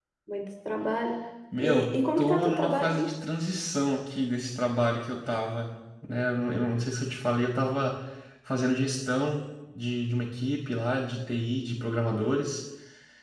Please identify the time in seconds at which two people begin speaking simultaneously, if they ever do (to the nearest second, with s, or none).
2 s